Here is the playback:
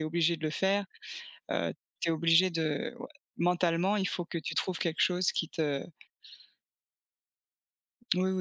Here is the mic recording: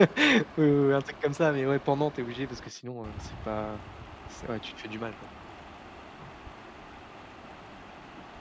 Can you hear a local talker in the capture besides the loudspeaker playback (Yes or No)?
Yes